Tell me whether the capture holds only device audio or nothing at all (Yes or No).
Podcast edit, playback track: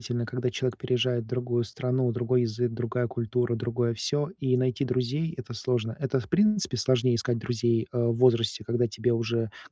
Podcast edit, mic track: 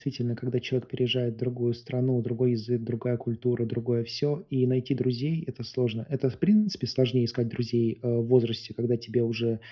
Yes